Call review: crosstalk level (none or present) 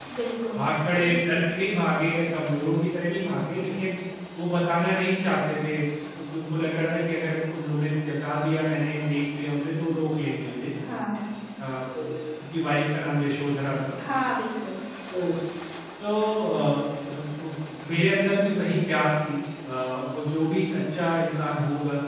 none